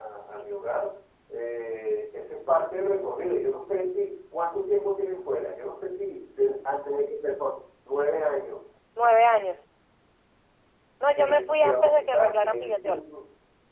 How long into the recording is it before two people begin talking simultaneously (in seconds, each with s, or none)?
11.2 s